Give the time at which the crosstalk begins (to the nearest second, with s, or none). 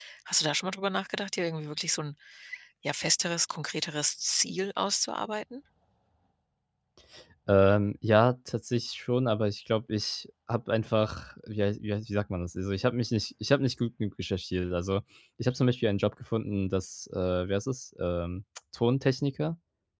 none